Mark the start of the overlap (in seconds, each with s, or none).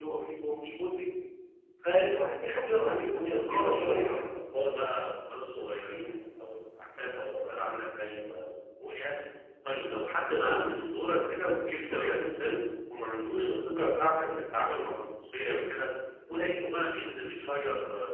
2.8 s